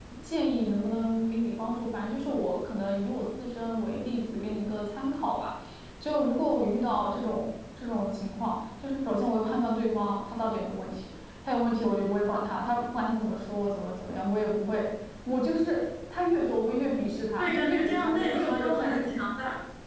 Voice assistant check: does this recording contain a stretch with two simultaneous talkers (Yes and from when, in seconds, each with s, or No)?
Yes, from 17.4 s